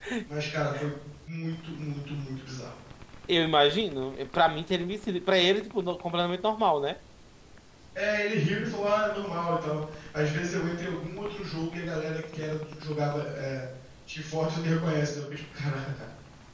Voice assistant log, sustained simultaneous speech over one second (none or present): none